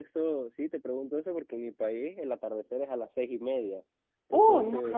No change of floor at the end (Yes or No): No